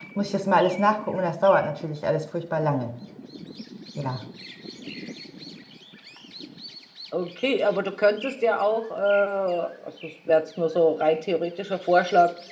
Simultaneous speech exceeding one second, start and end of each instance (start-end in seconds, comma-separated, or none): none